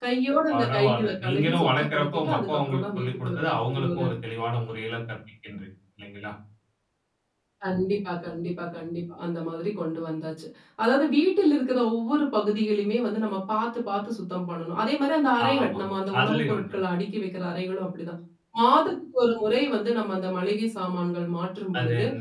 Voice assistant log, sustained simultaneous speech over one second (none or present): present